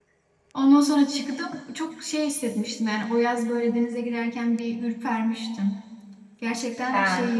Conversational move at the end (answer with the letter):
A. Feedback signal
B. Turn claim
A